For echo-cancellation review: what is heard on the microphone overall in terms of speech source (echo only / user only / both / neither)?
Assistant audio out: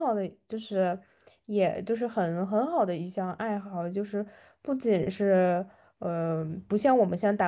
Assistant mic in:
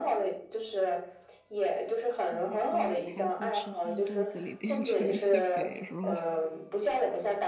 both